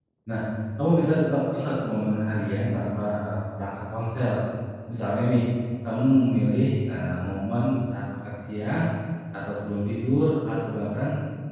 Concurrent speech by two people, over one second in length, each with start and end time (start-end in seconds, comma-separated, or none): none